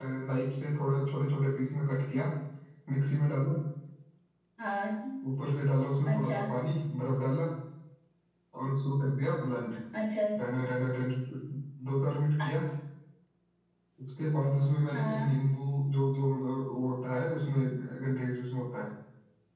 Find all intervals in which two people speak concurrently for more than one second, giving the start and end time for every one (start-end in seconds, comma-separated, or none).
none